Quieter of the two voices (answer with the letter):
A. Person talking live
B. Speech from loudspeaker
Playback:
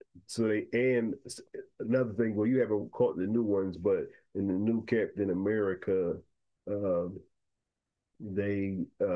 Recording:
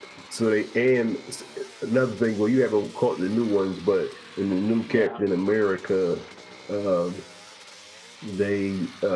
A